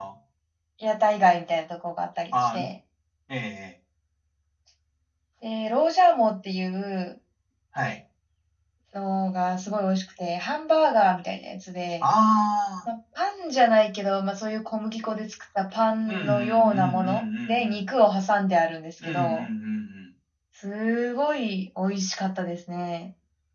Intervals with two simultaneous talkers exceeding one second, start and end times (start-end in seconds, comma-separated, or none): 16.1-17.9